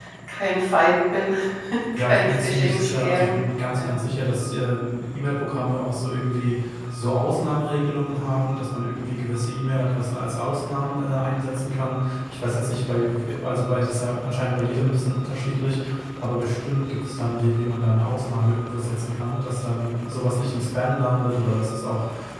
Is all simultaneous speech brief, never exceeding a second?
No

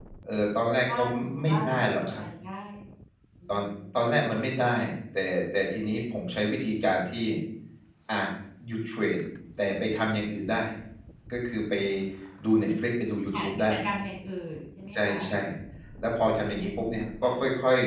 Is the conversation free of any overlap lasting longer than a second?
No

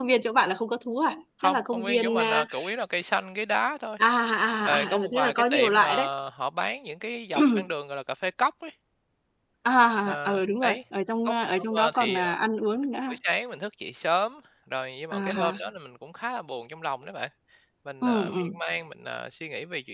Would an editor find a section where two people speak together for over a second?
Yes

